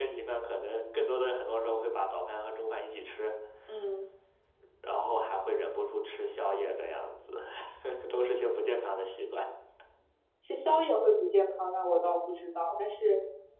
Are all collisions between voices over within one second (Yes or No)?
Yes